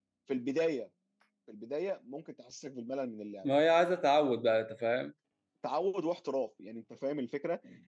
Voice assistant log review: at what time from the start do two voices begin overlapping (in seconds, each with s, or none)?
none